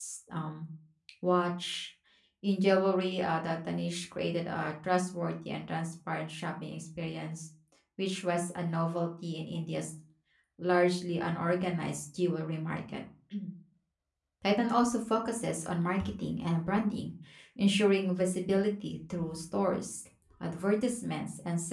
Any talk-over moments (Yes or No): No